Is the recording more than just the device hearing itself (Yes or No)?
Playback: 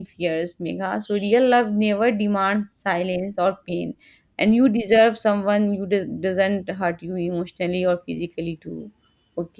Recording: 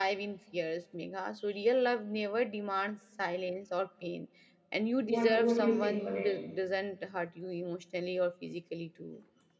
Yes